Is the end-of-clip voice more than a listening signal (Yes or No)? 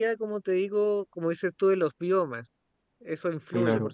Yes